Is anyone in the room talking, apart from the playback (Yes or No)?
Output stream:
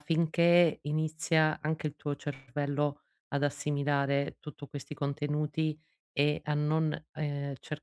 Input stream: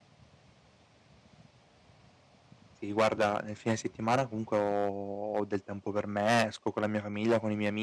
Yes